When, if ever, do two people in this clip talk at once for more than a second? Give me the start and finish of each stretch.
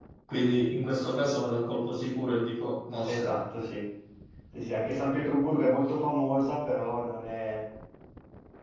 none

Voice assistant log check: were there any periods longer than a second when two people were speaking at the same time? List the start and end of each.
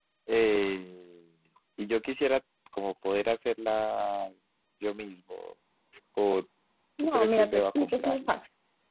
7.0-8.3

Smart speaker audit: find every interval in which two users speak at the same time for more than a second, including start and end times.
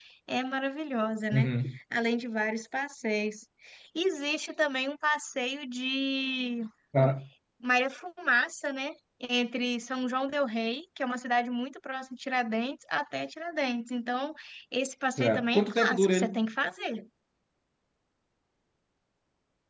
15.2-16.4

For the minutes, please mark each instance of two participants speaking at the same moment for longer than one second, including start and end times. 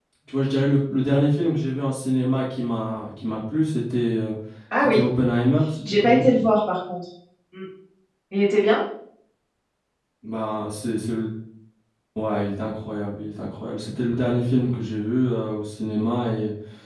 none

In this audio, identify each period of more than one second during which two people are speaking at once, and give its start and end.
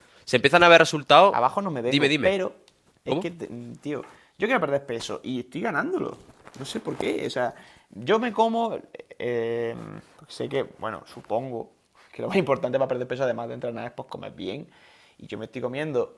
none

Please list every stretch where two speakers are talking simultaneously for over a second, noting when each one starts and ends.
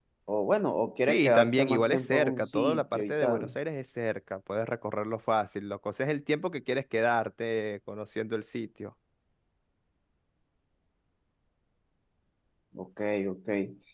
1.0-3.5

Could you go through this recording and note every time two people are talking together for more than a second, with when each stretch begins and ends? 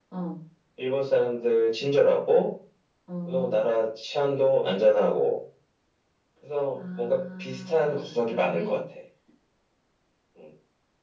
6.8-8.8

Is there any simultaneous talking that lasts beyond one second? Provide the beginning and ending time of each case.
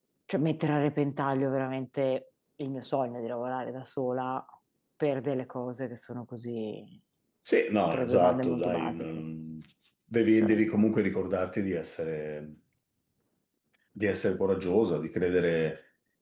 7.9-9.2

